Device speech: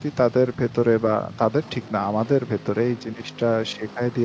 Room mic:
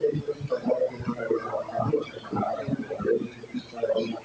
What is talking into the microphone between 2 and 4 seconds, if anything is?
echo only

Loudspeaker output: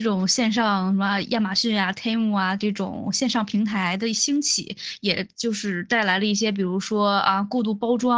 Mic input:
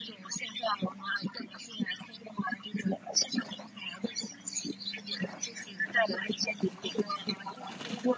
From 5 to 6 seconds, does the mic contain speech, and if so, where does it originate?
echo only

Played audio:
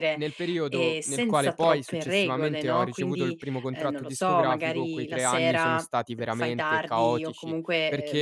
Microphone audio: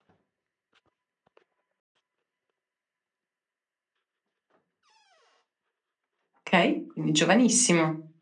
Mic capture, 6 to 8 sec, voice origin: user only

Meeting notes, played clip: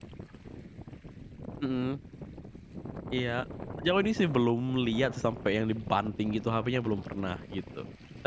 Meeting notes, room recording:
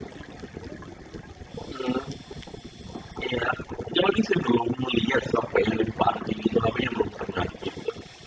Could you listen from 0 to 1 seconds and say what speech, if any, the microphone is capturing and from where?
neither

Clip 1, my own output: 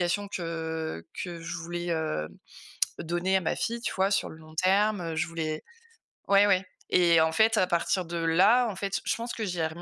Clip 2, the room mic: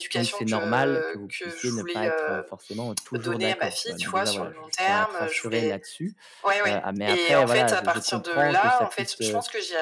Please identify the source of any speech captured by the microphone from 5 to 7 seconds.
both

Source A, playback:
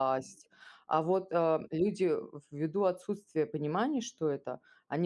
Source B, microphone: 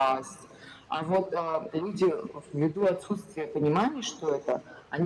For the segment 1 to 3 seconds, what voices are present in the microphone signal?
echo only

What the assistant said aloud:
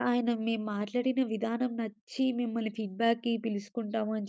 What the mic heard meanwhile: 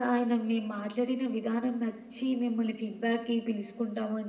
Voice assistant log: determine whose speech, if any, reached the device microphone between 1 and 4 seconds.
echo only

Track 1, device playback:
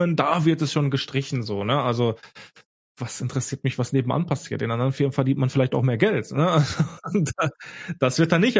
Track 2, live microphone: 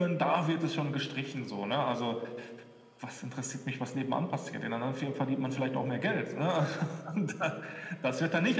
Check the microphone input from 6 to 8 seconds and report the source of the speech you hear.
echo only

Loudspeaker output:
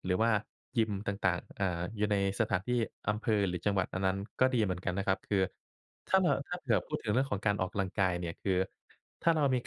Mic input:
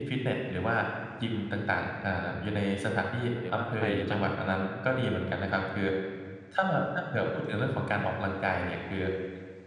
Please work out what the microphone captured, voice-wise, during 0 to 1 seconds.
echo only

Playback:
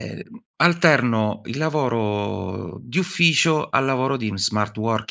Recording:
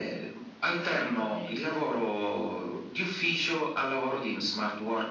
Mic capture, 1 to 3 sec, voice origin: both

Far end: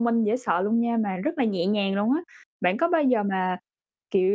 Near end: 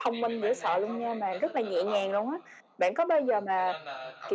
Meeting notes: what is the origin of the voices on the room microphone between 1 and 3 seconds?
both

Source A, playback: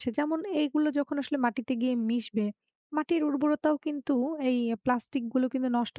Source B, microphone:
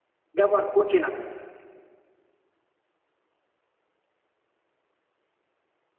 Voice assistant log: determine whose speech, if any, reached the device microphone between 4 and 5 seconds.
neither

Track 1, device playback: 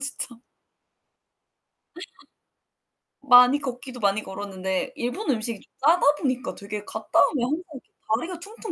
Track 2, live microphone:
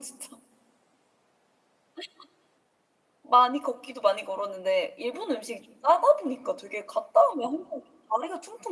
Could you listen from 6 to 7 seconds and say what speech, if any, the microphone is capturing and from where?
echo only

